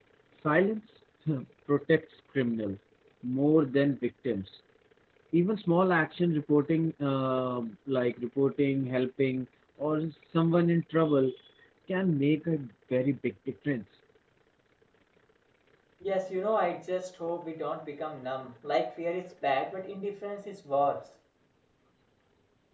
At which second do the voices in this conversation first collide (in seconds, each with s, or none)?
none